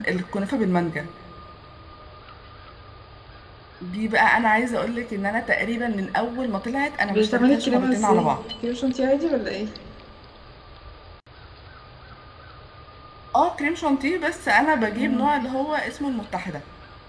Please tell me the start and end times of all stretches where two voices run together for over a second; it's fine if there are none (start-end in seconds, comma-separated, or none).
7.1-8.4